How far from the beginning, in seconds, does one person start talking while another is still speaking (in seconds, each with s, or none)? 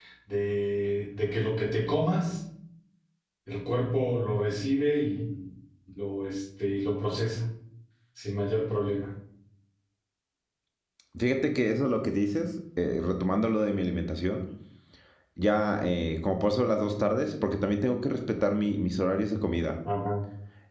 none